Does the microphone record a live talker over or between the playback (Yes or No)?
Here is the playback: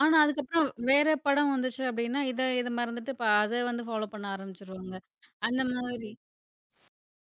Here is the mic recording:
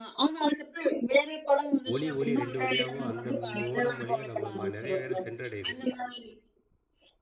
Yes